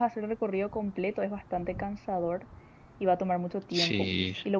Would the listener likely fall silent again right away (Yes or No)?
Yes